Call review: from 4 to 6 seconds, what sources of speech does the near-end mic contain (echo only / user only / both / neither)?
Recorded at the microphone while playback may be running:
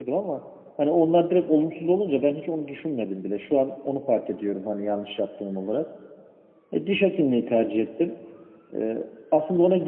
user only